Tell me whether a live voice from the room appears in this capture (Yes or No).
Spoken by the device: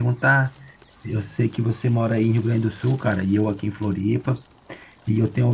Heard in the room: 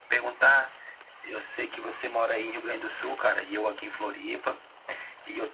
No